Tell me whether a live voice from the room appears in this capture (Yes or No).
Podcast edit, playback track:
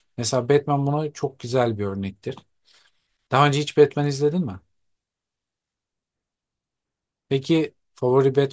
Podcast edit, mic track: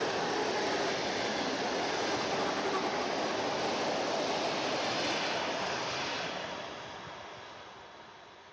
No